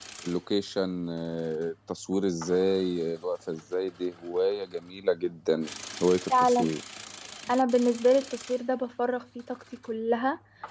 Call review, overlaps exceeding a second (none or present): none